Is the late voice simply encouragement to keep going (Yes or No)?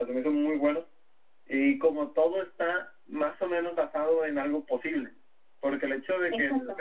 Yes